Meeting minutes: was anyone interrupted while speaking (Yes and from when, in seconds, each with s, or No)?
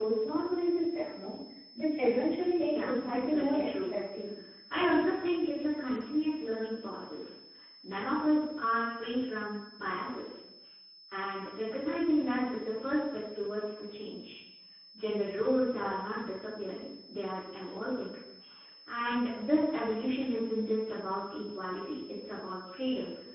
Yes, from 2.7 s